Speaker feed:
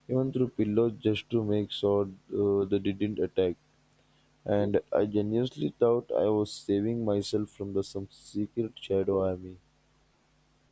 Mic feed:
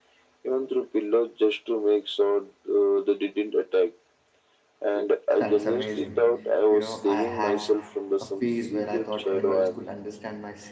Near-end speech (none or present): present